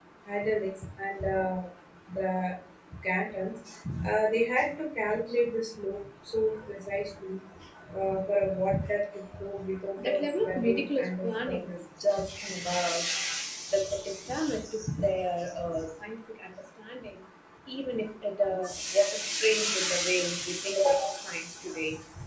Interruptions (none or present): present